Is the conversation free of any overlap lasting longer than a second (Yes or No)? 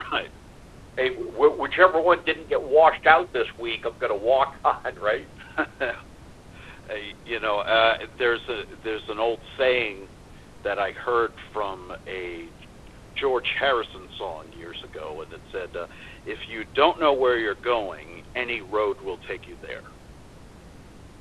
Yes